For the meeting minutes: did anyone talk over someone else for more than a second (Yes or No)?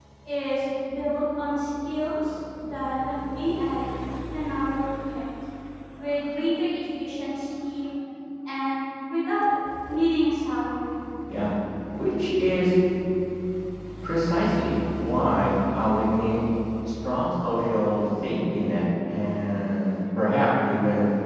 No